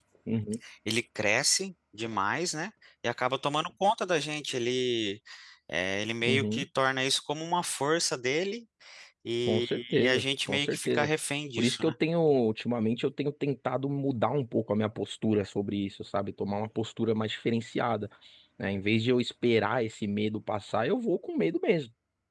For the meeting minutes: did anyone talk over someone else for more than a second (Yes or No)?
Yes